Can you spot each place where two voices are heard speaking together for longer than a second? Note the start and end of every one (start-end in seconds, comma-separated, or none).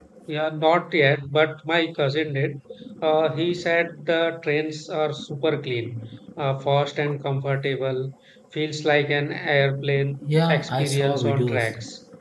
10.5-11.7